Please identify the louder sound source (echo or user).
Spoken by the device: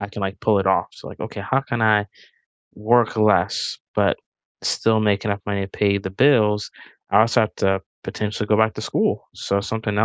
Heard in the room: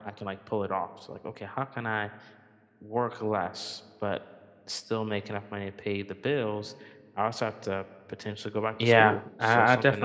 user